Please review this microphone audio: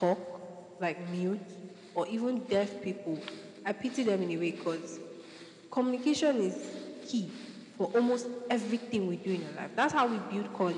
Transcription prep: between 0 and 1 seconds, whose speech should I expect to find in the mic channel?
echo only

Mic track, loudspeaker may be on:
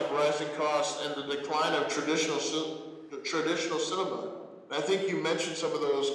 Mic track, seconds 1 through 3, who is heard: echo only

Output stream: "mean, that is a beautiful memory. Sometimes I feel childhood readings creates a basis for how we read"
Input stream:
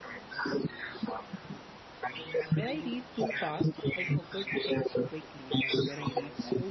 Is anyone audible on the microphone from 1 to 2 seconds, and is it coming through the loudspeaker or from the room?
echo only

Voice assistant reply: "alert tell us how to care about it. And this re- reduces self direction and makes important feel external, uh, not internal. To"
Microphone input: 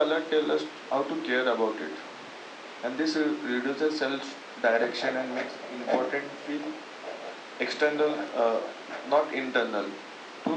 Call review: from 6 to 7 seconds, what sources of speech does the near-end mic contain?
echo only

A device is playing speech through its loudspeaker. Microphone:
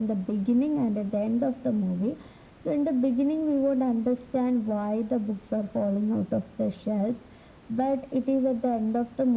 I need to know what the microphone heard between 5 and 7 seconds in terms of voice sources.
echo only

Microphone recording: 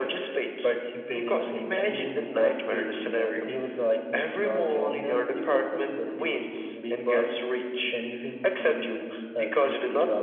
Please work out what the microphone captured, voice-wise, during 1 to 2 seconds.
echo only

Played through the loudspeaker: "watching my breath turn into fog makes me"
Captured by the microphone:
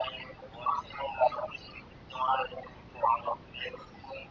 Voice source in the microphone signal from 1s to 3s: echo only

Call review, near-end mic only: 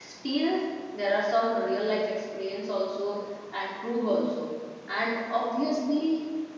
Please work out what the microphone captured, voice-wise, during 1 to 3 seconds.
user only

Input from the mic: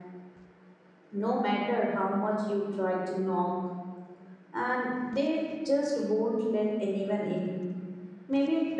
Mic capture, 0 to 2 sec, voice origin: echo only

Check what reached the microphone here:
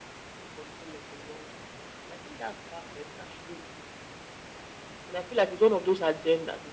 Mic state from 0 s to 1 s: echo only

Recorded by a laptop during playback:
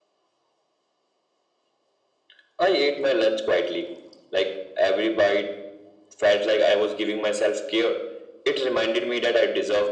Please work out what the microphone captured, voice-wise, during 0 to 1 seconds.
neither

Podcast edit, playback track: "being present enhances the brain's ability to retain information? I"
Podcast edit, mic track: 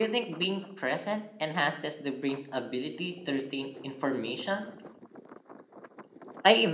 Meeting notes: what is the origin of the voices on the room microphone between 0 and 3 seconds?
echo only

